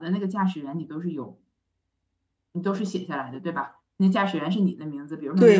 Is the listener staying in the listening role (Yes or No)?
No